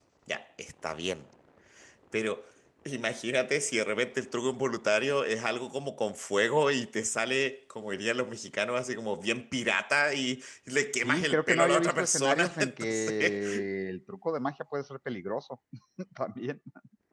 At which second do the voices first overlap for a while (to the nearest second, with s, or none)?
11 s